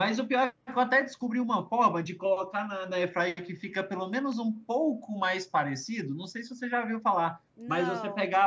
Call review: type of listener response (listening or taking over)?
listening